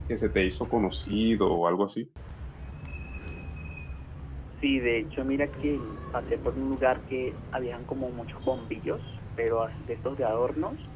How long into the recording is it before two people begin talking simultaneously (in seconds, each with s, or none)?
none